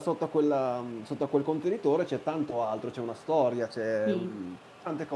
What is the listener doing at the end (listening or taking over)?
listening